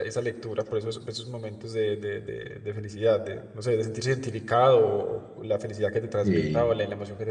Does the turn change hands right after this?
No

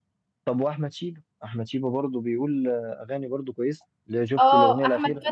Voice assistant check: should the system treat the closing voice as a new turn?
Yes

